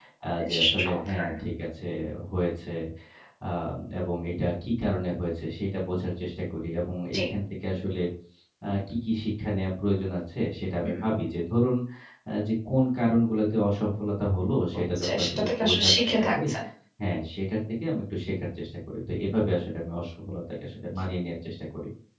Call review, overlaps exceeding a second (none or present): present